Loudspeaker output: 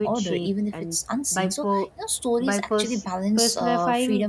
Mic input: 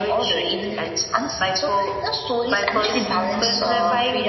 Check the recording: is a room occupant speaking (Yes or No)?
Yes